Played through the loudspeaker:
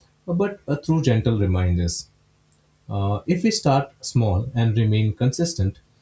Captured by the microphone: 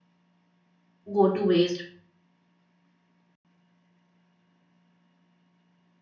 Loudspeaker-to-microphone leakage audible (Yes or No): No